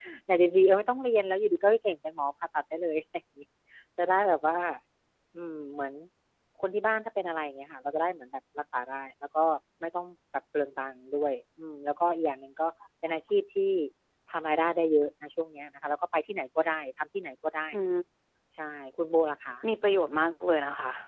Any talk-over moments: No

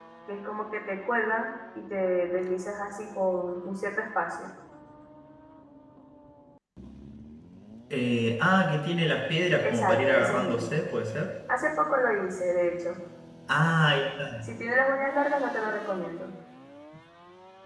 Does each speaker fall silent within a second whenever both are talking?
No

